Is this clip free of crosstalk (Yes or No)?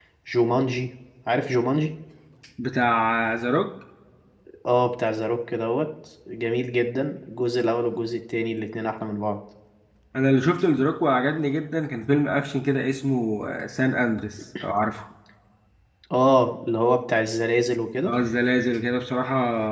Yes